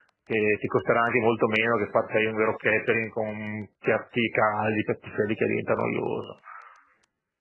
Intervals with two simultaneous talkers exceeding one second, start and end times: none

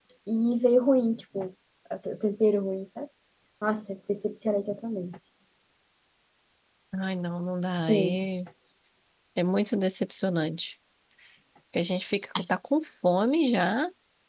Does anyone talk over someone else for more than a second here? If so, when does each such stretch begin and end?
none

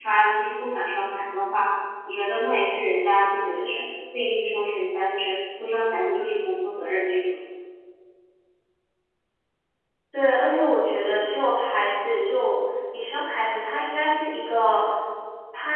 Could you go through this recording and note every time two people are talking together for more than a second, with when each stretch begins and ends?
none

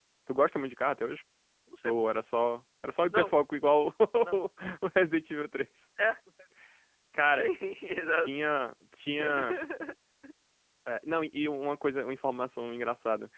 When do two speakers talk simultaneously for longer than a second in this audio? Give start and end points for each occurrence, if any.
none

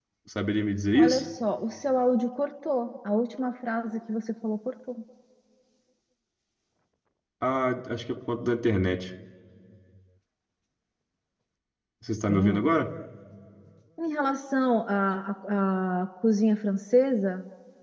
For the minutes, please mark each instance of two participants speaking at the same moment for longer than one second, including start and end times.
none

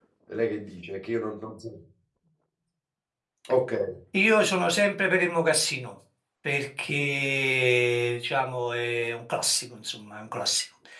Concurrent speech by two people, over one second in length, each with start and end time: none

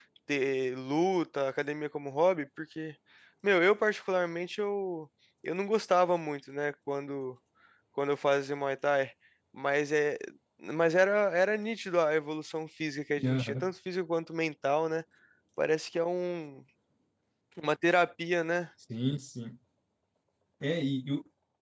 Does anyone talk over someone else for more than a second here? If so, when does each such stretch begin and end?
none

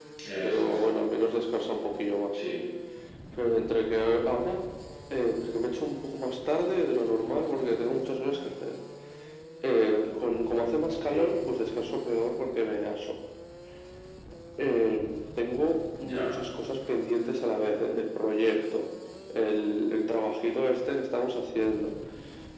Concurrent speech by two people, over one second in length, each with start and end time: none

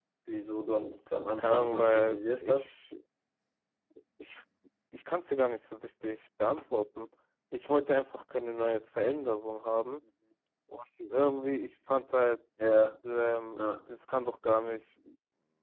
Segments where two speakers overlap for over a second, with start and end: 1.3-2.7

